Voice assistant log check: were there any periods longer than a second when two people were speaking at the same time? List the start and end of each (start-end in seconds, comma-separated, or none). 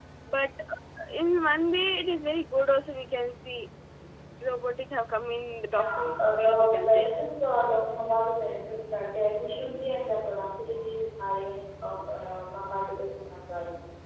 5.7-7.1